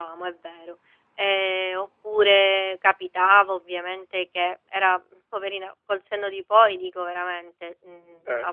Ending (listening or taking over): listening